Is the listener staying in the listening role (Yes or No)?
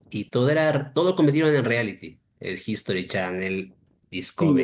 No